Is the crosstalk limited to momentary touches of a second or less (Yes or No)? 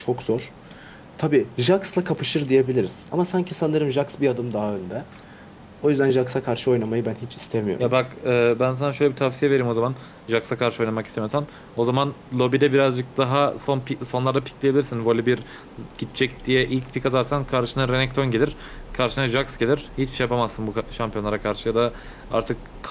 Yes